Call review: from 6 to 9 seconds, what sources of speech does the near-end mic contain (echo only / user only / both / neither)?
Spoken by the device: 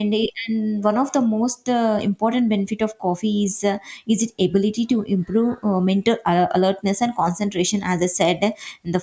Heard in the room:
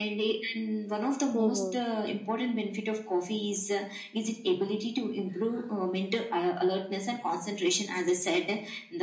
echo only